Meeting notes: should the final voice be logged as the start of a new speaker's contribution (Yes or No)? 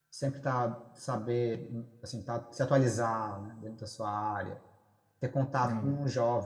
No